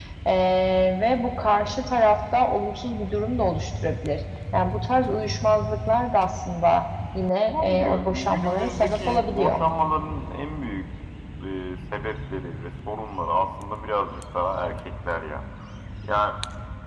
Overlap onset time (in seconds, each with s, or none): 7.5 s